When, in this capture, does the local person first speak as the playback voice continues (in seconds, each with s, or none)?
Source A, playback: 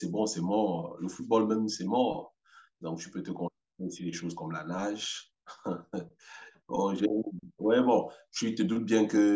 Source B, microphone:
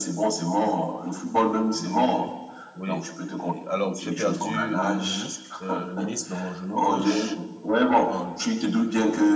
1.7 s